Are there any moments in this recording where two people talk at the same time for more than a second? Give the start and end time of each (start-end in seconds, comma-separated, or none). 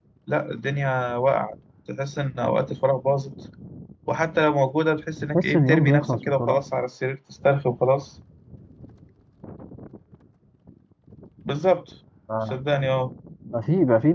5.3-6.6